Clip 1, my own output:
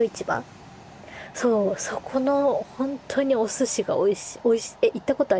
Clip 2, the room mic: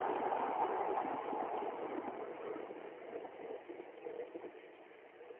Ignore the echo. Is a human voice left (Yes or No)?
No